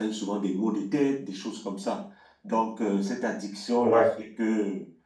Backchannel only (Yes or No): Yes